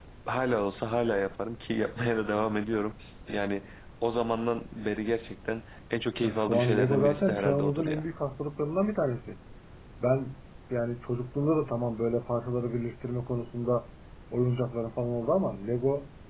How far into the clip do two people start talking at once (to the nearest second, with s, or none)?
6 s